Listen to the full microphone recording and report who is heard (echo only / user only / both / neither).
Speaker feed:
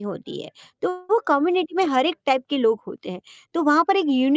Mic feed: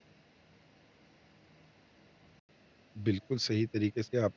user only